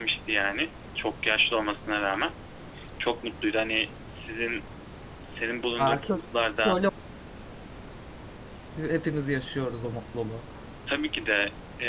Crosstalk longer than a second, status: none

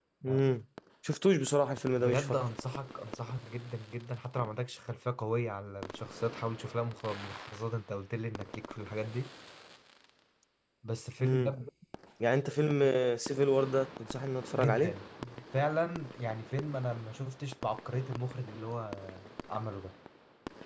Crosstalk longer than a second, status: none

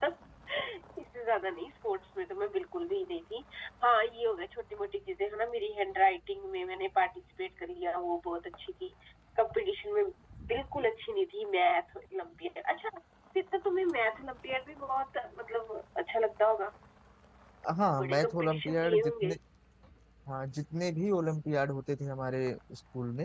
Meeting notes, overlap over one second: present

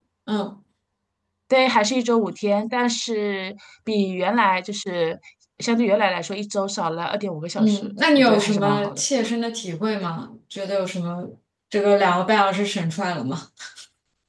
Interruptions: present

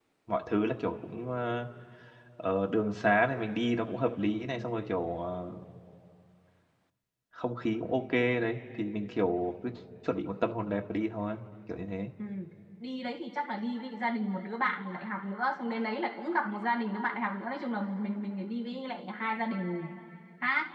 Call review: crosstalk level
none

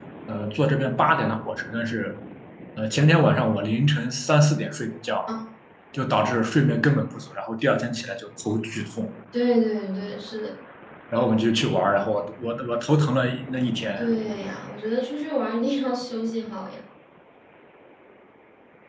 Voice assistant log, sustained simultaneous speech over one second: none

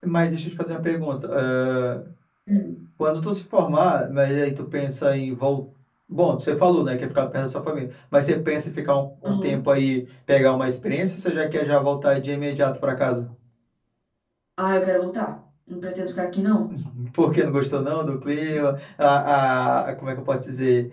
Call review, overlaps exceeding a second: none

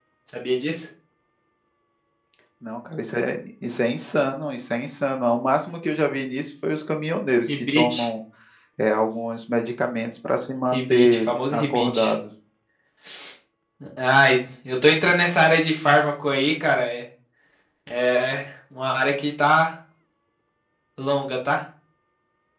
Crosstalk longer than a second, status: present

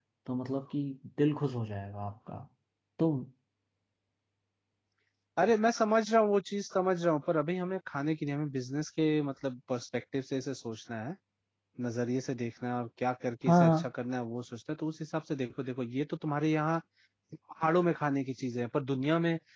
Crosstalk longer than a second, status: none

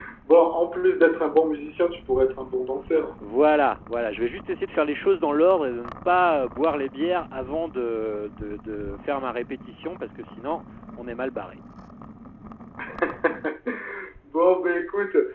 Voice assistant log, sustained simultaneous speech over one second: none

